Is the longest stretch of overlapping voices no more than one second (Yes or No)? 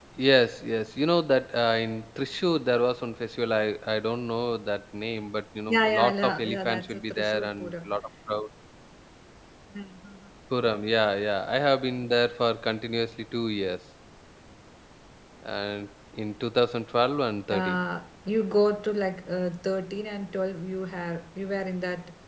No